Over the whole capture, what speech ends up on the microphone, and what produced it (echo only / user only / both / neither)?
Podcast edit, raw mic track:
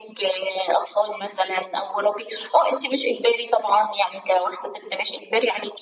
echo only